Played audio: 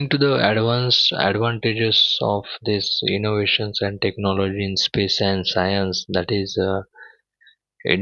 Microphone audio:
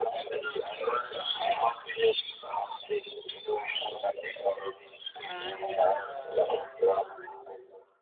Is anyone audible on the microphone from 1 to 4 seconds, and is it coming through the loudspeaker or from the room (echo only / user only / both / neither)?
echo only